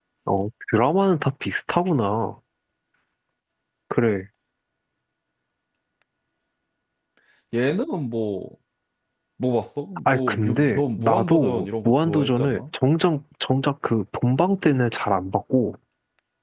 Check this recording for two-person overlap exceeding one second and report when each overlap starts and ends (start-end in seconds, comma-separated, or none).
10.1-12.6